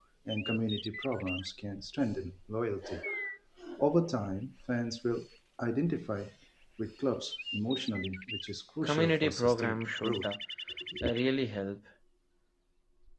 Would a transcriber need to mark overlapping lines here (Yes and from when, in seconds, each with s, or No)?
Yes, from 8.8 s